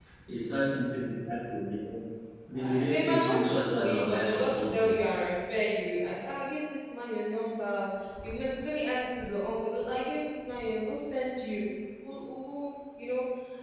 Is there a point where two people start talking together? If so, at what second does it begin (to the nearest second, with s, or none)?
3 s